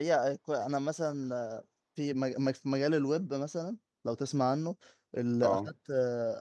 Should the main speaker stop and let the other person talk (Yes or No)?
No